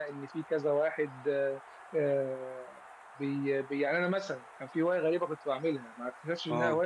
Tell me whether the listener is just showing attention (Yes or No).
Yes